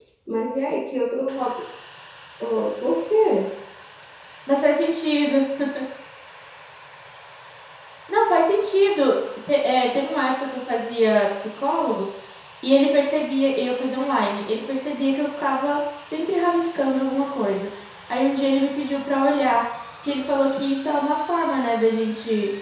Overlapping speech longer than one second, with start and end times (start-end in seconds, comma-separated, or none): none